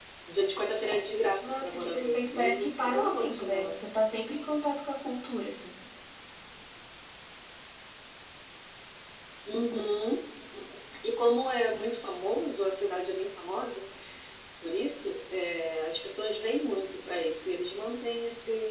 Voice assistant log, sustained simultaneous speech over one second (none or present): present